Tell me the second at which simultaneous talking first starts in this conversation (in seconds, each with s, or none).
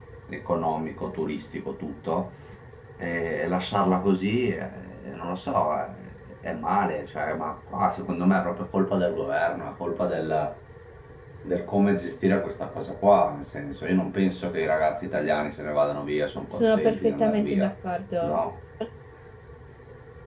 16.5 s